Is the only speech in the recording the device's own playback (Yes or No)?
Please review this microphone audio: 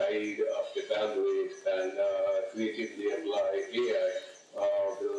Yes